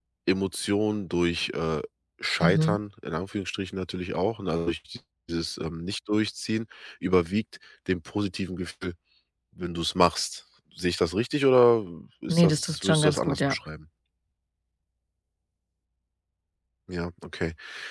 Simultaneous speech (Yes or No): Yes